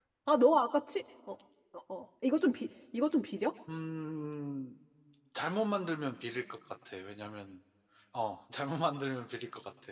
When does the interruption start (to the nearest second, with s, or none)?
none